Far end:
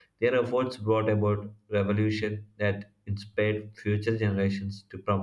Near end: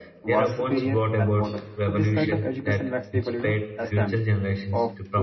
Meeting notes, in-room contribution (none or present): present